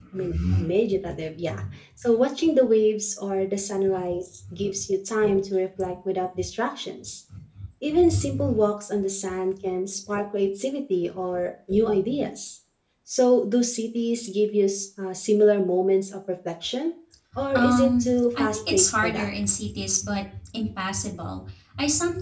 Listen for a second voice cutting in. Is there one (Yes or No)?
Yes